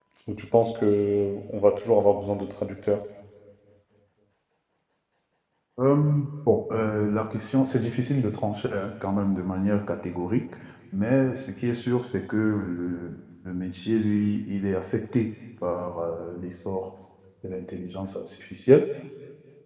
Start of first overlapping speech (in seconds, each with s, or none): none